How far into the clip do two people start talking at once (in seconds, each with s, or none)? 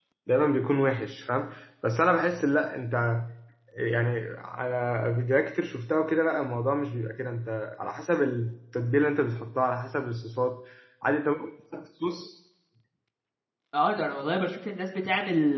none